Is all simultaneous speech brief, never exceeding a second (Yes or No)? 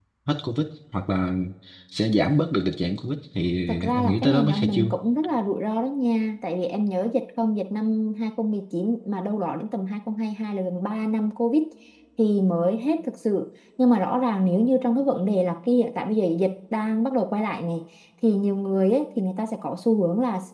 No